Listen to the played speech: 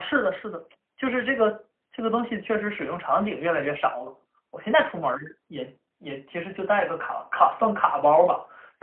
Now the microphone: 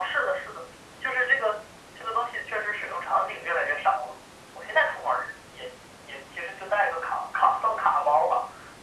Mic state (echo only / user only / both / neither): echo only